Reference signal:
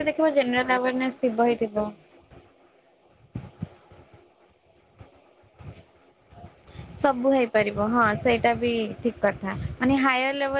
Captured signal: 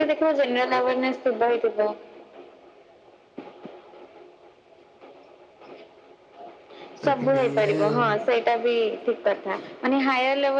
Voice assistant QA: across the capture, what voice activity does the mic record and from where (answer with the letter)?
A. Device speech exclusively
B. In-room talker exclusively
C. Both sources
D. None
C